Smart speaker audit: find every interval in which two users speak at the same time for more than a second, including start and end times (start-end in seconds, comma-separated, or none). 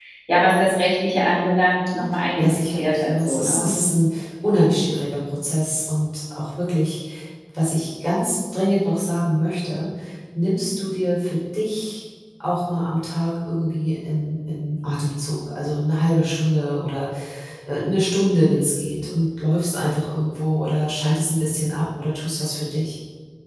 2.4-3.7